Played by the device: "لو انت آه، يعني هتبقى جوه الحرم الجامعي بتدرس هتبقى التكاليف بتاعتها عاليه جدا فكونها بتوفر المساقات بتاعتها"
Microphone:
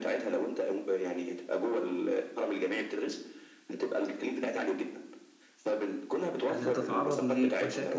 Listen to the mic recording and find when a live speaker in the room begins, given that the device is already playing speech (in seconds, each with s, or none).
6.5 s